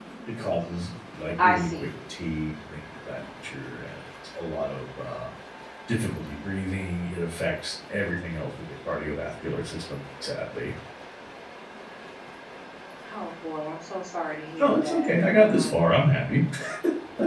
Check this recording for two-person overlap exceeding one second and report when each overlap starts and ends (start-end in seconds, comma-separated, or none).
14.6-15.9